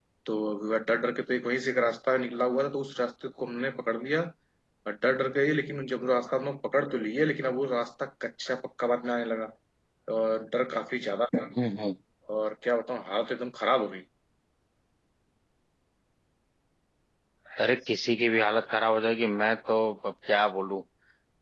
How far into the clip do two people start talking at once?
none

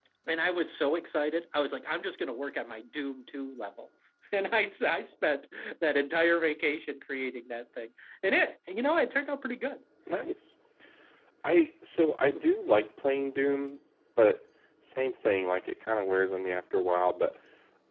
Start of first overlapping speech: none

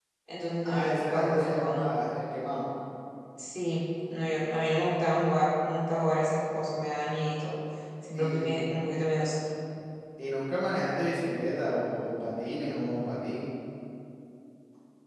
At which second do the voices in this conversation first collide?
0.6 s

